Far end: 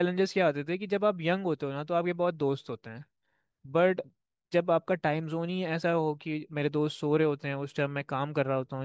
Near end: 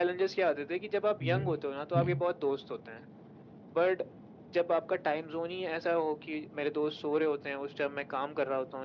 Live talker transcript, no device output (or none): जी हम्म